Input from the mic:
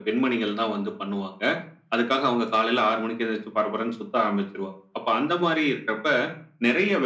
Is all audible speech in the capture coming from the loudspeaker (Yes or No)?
Yes